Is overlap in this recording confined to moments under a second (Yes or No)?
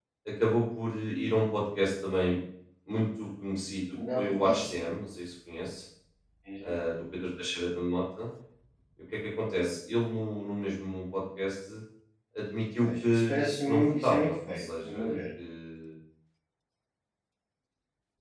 No